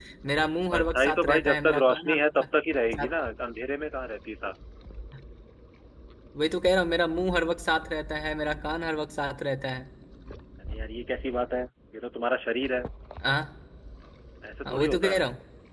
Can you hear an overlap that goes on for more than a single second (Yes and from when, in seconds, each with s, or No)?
Yes, from 0.7 s